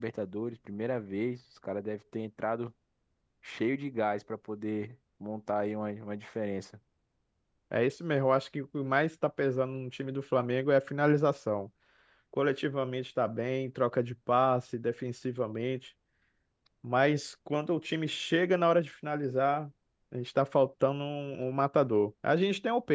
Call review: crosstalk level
none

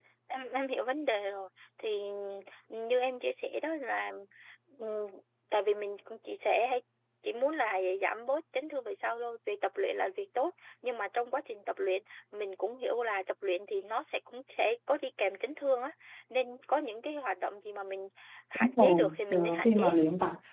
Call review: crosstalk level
present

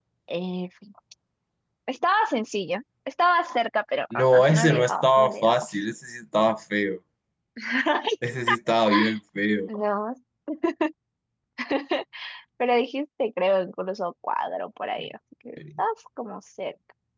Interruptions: present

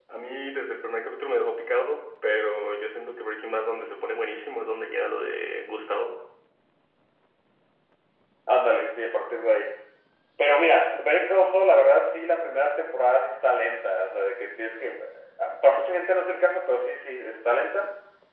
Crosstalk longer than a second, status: none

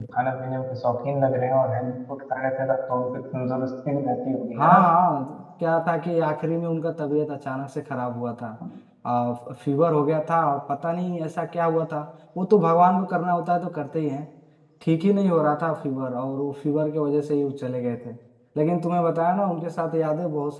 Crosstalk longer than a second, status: none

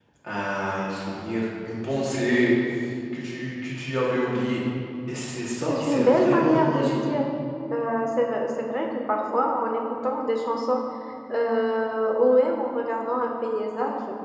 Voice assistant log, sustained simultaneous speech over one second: present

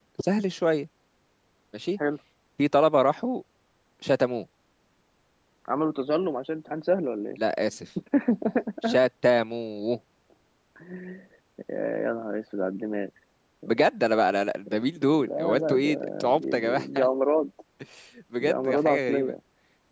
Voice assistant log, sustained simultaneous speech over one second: present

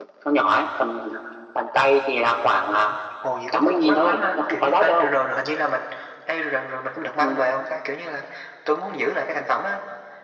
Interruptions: present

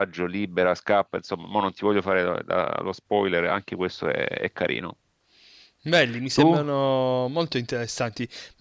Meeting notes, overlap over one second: none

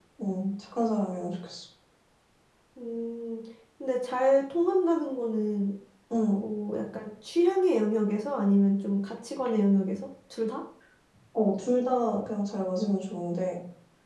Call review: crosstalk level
none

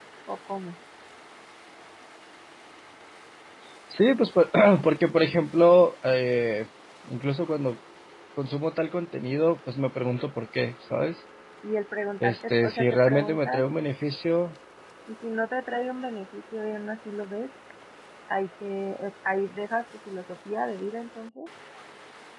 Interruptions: present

